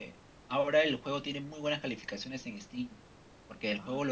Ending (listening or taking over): listening